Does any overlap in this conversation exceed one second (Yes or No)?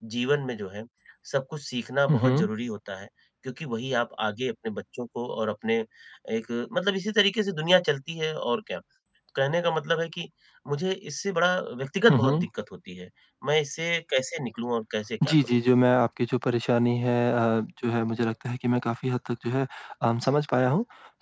No